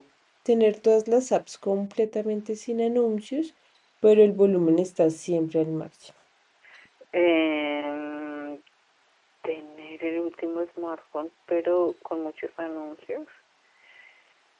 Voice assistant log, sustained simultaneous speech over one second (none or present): none